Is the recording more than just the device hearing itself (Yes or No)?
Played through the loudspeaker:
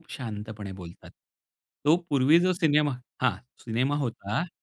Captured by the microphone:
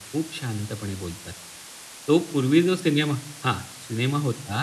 No